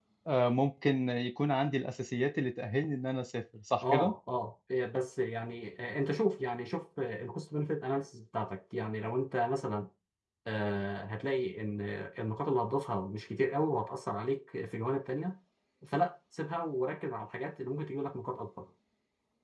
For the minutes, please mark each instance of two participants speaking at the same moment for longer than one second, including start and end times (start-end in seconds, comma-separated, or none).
none